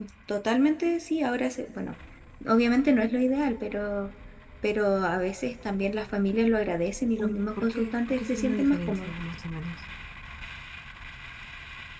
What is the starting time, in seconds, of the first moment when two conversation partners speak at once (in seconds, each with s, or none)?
7.2 s